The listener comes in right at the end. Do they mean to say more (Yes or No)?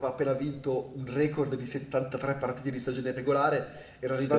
No